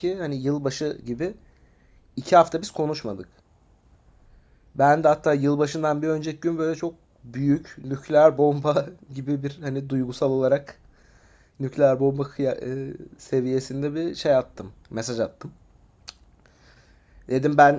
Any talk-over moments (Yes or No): No